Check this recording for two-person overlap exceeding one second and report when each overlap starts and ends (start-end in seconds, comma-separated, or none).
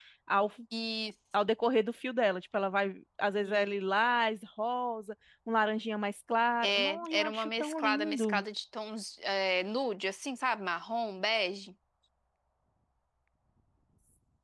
6.6-8.4